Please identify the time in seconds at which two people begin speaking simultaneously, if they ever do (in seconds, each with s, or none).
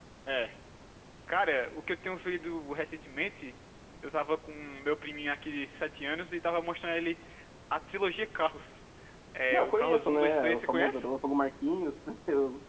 9.5 s